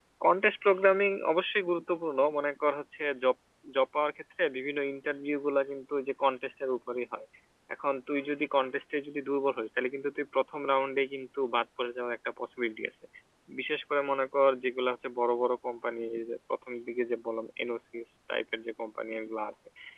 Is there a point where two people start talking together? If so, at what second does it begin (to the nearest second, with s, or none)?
none